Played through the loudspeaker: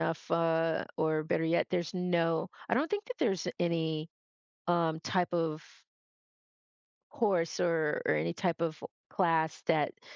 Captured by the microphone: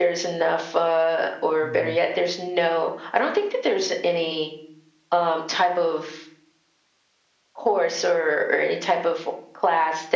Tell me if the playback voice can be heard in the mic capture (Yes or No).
Yes